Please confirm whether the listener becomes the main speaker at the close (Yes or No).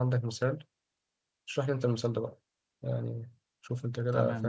Yes